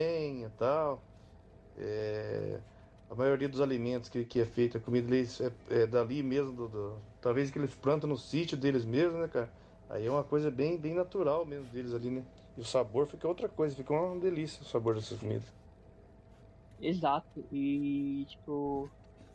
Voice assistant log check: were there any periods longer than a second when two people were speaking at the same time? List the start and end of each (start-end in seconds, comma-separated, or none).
none